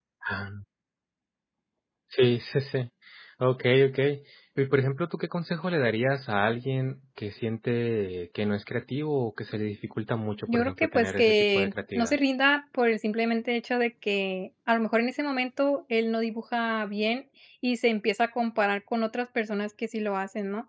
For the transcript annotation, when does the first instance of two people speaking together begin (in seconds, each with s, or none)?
10.5 s